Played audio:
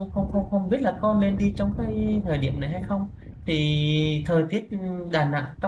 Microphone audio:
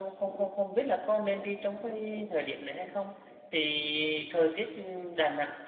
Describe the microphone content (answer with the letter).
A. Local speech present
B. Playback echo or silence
B